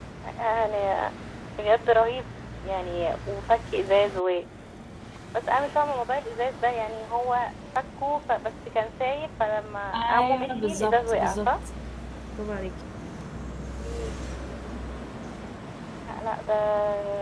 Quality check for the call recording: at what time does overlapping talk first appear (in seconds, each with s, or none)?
9.9 s